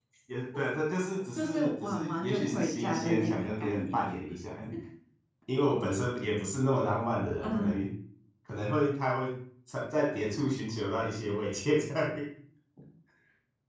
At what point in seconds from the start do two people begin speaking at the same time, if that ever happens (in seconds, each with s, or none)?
1.3 s